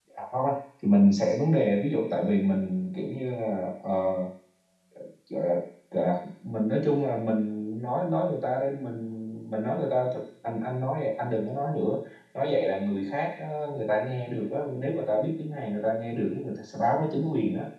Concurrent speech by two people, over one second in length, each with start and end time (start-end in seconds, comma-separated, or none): none